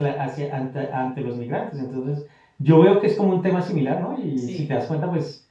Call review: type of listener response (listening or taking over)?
listening